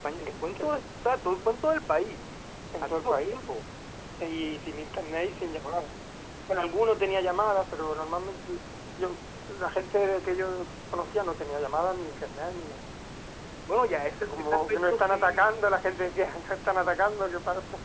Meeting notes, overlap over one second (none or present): present